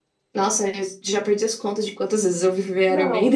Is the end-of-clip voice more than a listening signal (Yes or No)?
Yes